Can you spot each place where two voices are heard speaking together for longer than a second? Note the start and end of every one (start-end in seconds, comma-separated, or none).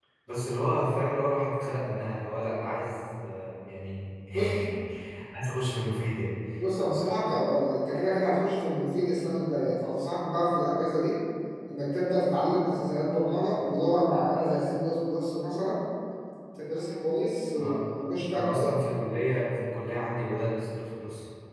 none